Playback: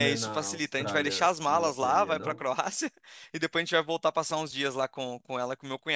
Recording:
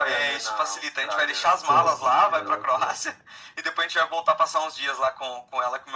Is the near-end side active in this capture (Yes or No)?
Yes